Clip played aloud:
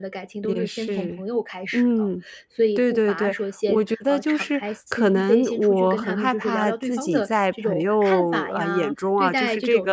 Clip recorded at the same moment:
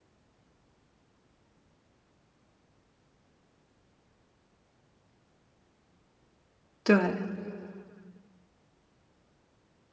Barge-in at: 6.8 s

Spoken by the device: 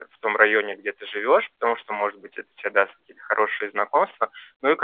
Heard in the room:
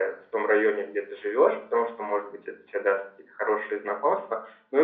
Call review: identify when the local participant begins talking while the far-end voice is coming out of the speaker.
none

